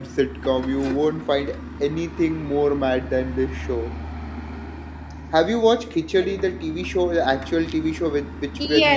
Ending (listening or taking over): taking over